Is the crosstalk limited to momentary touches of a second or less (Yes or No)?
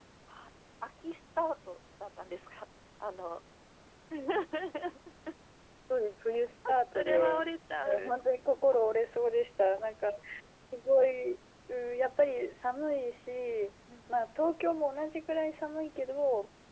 Yes